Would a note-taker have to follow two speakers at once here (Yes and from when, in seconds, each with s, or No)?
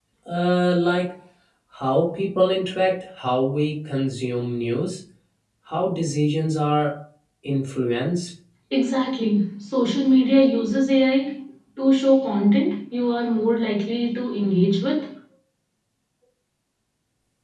No